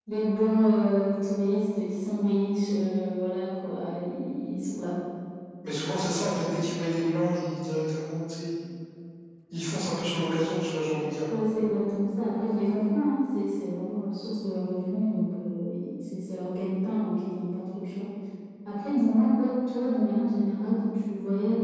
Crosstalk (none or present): none